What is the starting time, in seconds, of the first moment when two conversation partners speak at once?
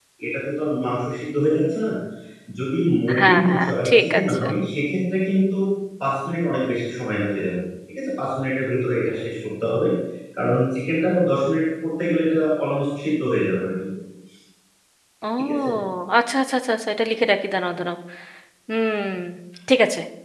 3.2 s

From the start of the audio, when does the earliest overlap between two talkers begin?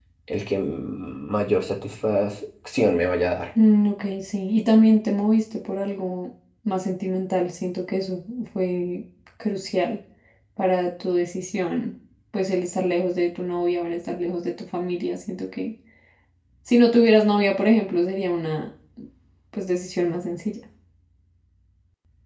none

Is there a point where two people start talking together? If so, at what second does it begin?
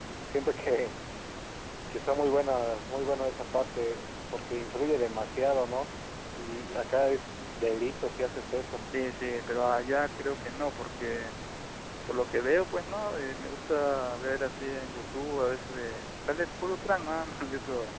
none

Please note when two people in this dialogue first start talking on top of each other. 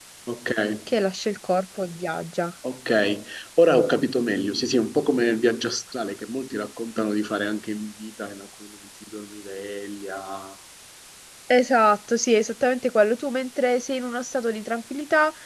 none

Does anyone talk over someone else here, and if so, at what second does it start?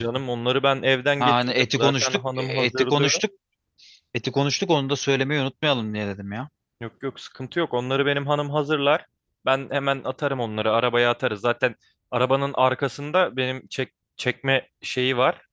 1.2 s

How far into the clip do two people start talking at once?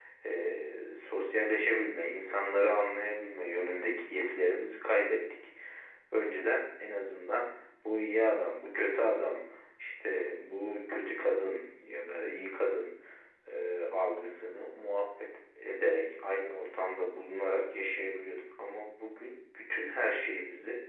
none

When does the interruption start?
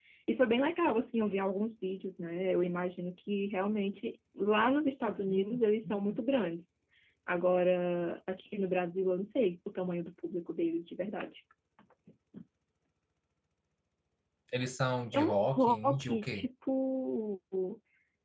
15.1 s

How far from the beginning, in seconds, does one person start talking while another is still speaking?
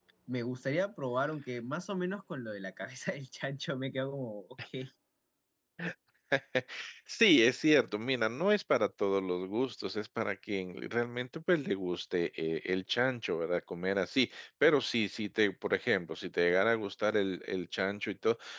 none

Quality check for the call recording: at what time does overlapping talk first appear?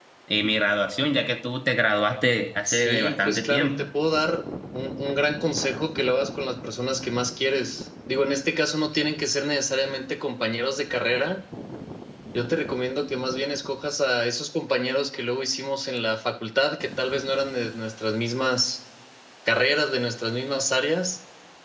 2.7 s

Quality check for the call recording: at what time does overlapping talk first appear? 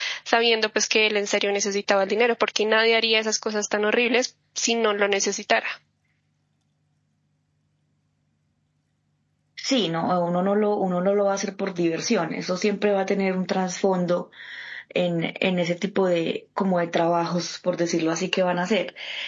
none

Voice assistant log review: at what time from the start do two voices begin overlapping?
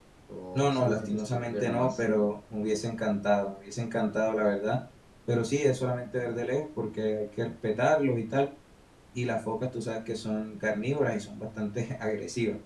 0.6 s

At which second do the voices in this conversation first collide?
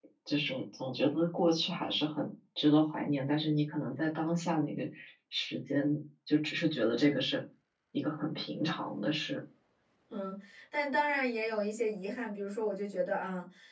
none

